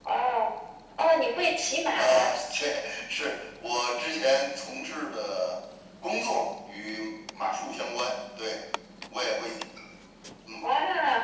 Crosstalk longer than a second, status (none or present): none